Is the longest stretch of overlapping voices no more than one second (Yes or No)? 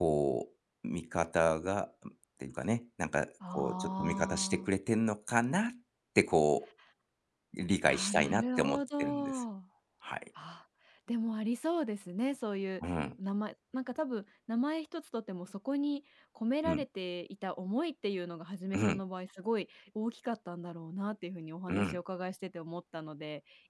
No